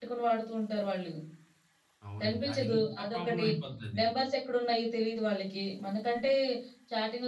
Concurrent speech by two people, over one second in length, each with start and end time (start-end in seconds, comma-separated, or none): 2.2-3.5